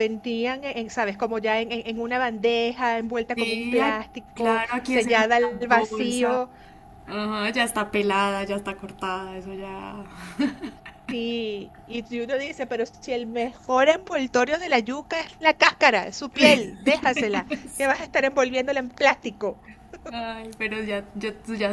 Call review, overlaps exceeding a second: present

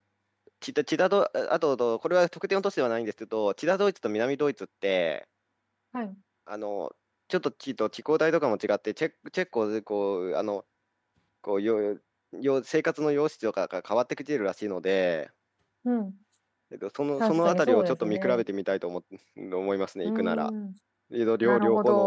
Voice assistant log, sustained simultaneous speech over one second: present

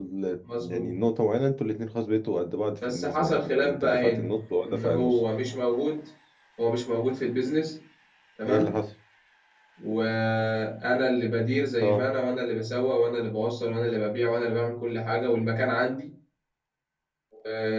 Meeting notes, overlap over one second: present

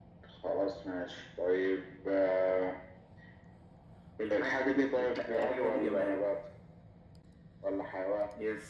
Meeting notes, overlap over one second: present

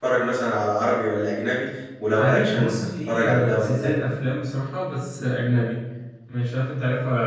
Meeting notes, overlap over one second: present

